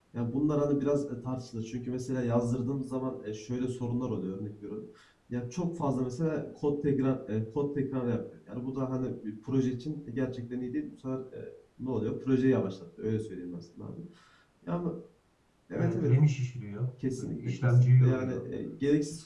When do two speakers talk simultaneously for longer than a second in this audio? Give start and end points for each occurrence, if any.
17.2-18.5

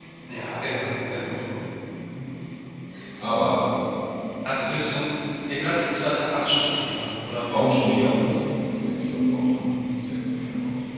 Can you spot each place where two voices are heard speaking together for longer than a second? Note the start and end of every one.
none

